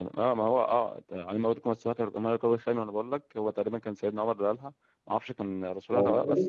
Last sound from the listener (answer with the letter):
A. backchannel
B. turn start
A